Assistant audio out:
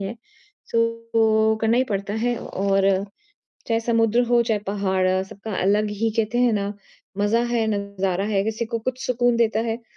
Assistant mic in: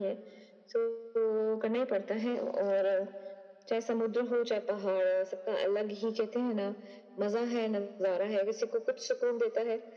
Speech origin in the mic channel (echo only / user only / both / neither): echo only